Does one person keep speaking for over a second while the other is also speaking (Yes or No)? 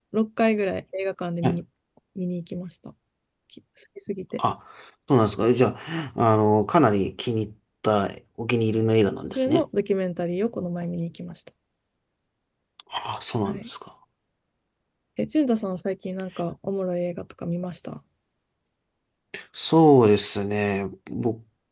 No